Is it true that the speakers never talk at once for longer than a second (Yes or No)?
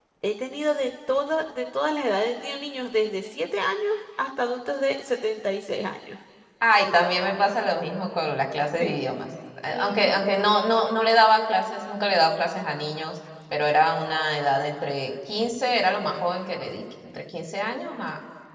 Yes